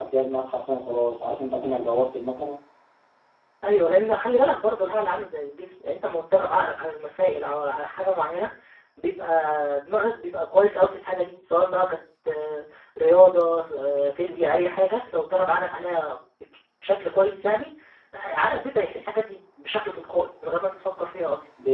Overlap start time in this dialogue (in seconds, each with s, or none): none